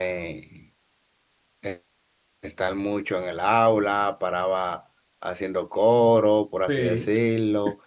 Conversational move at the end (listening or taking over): listening